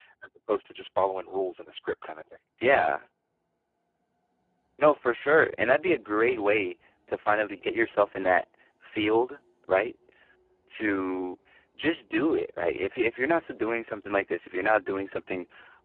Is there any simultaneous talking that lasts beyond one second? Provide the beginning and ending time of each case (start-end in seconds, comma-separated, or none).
none